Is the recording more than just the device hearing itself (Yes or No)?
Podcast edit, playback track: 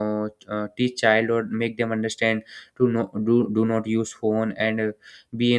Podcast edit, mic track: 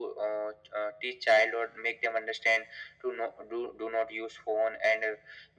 No